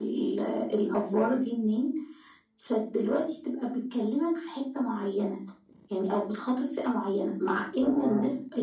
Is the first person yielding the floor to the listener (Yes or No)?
No